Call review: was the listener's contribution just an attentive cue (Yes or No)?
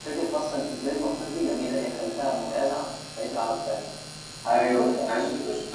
No